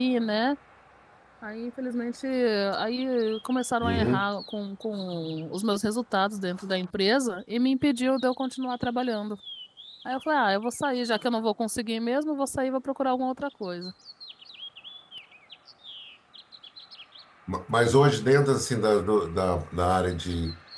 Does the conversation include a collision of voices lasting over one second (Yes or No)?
No